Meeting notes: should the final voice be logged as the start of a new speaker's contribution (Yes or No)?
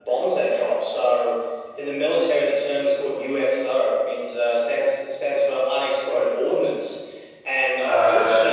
No